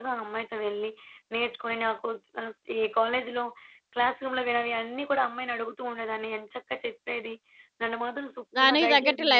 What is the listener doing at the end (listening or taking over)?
taking over